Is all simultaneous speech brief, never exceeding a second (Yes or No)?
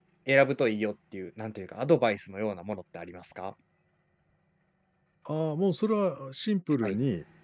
Yes